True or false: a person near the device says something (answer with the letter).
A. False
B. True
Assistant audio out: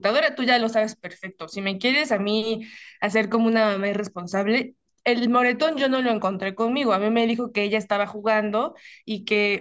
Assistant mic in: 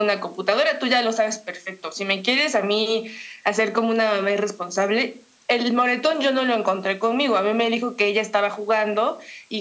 A